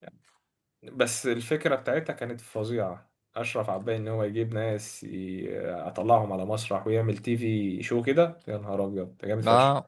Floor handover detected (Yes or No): Yes